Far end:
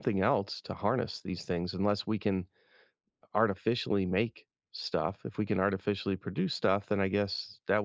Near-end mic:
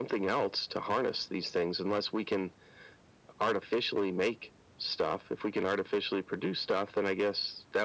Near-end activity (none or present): none